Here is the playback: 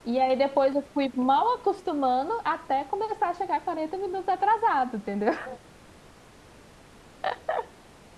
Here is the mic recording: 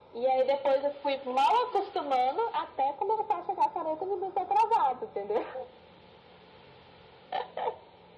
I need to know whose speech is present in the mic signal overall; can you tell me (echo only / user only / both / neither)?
echo only